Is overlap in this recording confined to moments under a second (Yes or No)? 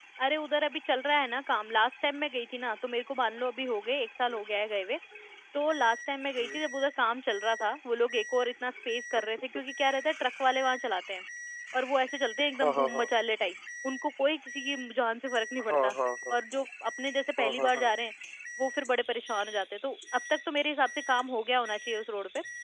Yes